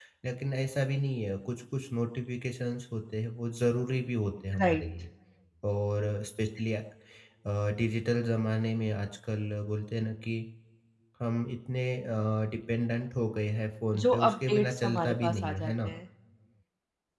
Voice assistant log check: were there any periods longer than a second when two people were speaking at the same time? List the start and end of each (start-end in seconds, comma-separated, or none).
14.0-15.9